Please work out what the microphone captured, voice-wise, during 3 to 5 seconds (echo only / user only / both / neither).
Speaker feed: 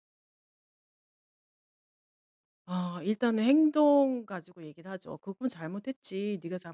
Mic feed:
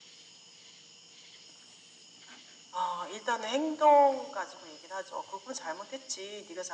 echo only